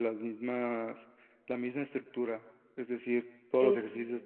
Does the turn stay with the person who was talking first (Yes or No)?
Yes